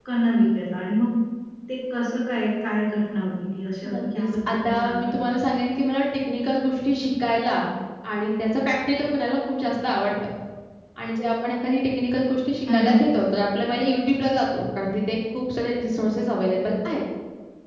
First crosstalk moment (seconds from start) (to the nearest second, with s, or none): 4 s